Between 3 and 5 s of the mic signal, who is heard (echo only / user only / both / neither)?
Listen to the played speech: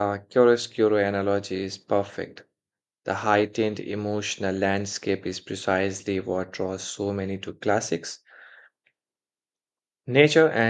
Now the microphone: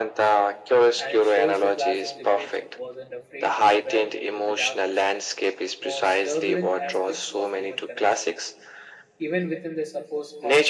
both